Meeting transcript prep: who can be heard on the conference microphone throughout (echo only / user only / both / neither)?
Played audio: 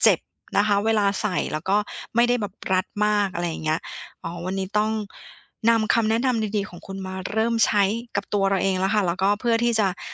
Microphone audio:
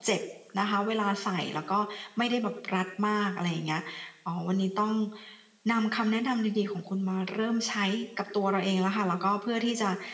echo only